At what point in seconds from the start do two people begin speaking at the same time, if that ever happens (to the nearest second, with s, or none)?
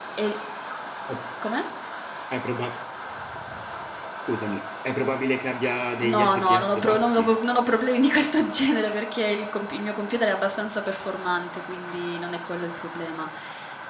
6 s